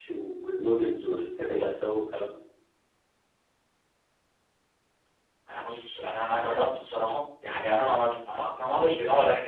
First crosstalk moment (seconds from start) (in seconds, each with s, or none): none